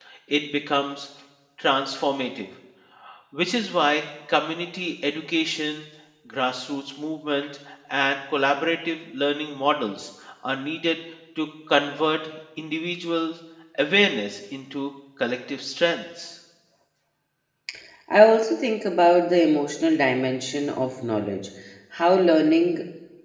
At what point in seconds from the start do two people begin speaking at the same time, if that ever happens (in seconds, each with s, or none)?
none